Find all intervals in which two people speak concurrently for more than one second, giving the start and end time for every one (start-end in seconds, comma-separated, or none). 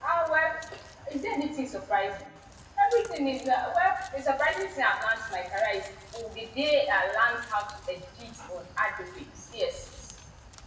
none